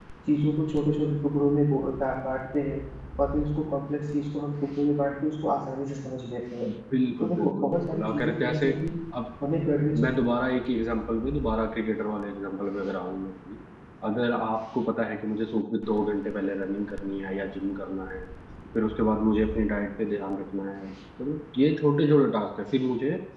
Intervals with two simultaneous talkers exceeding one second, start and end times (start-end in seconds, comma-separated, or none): 7.2-8.7